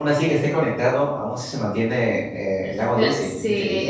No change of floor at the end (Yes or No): No